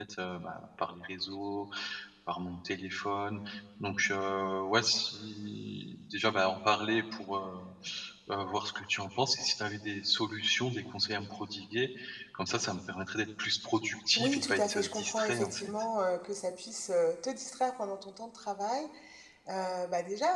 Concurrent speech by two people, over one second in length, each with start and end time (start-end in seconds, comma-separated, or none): 14.2-15.7